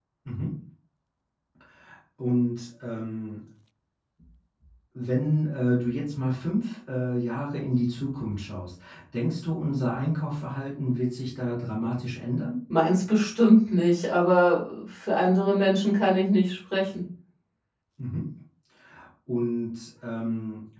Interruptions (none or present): none